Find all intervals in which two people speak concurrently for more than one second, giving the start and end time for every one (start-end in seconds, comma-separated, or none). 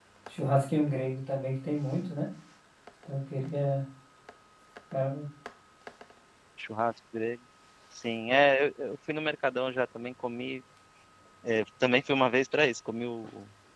none